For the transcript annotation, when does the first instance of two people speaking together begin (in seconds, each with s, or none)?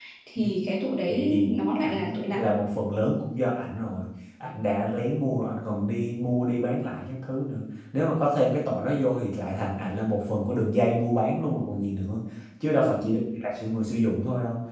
1.1 s